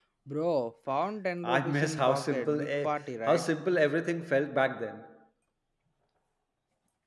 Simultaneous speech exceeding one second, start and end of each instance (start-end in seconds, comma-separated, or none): 1.4-3.5